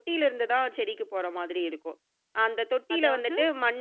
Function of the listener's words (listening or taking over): listening